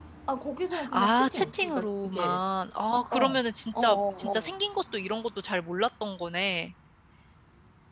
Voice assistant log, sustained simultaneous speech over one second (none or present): present